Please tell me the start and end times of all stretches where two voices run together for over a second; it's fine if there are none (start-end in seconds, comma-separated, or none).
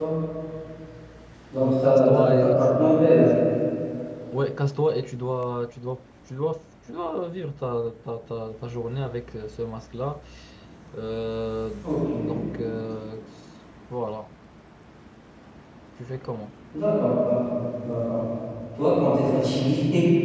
1.6-3.2